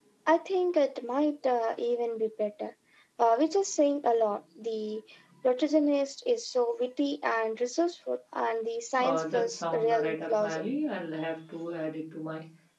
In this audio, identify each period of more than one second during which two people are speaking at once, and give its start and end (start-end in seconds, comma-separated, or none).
9.0-10.6